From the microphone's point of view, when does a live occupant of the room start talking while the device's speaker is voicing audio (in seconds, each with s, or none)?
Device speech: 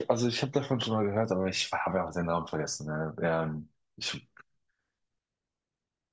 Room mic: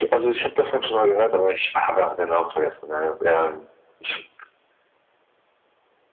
none